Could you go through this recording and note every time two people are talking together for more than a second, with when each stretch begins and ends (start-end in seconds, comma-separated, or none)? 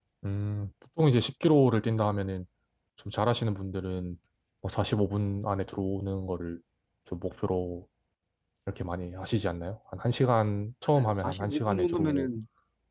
11.0-12.3